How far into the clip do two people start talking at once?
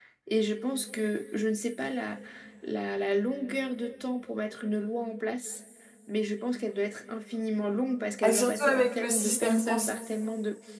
8.2 s

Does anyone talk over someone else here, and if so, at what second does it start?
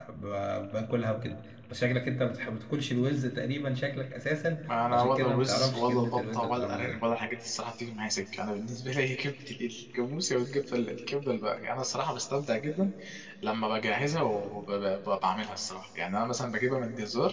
4.7 s

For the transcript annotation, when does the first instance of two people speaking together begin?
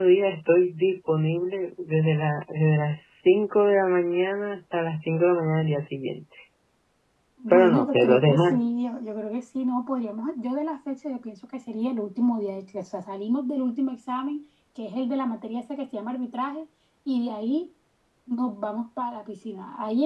7.5 s

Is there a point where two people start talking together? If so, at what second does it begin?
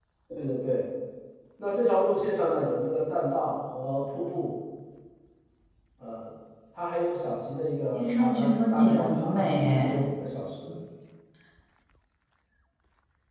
7.9 s

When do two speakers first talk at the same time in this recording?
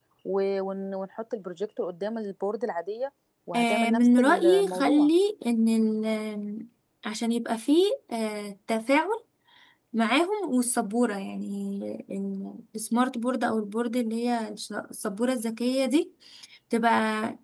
3.5 s

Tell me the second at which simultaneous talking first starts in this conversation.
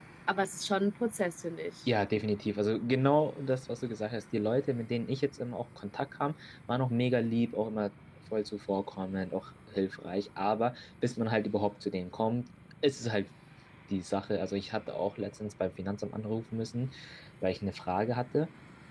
none

